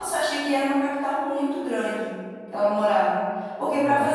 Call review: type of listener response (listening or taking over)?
listening